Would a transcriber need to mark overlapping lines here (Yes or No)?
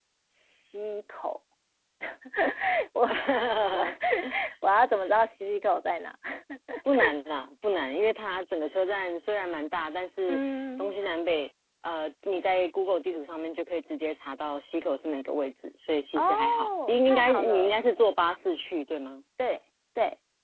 Yes